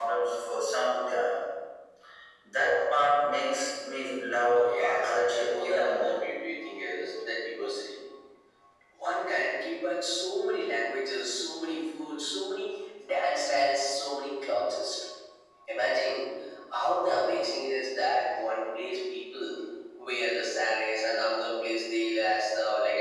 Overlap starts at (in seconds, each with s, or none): 4.6 s